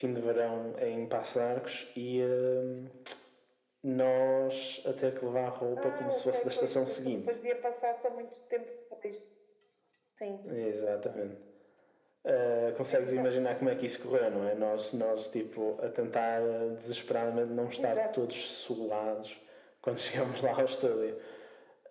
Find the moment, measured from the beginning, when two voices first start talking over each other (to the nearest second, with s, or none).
6 s